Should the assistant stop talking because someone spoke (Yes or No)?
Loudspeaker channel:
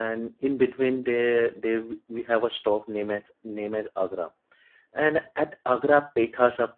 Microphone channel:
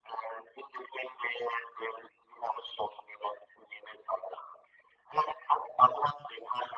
No